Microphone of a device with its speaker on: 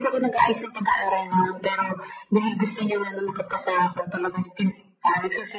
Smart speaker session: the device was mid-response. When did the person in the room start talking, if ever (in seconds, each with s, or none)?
none